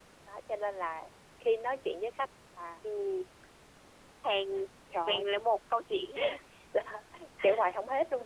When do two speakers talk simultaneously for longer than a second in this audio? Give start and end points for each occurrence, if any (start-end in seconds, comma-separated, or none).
none